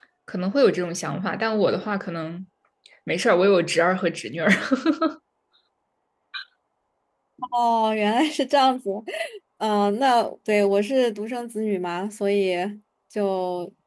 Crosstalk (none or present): none